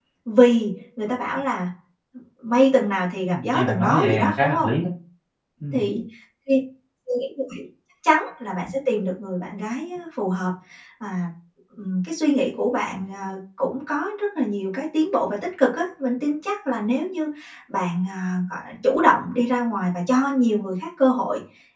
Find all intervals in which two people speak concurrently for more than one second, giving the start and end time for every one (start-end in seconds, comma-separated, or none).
3.2-4.7